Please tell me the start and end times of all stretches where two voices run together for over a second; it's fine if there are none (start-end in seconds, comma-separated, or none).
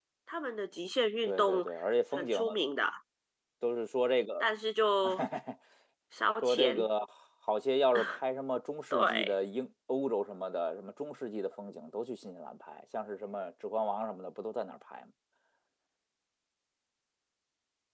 none